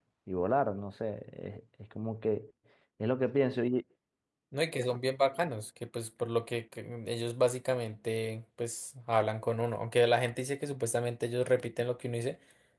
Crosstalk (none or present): none